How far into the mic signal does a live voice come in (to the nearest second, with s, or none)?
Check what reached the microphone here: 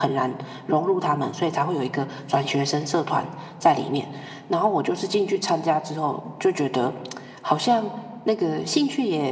none